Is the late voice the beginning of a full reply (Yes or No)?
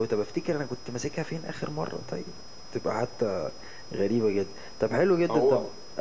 No